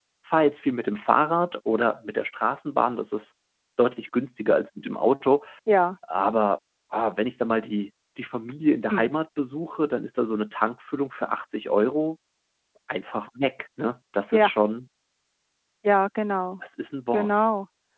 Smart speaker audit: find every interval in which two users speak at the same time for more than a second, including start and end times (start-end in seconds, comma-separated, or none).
none